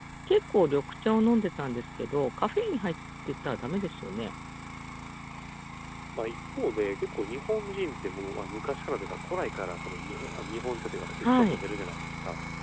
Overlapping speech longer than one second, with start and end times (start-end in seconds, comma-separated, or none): none